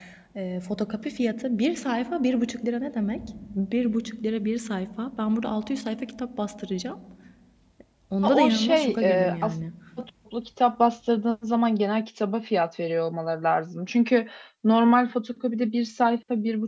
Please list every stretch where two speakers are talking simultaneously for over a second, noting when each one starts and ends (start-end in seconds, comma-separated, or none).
8.2-9.5